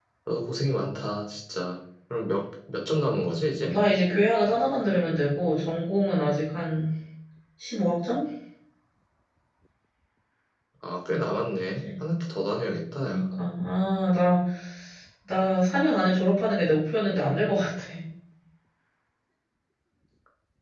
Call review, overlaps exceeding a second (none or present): none